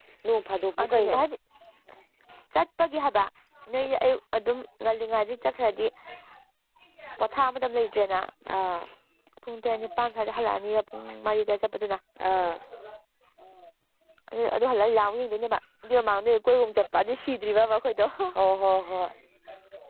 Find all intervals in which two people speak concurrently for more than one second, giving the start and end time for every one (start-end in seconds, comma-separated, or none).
none